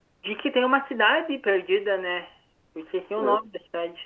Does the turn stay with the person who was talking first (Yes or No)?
No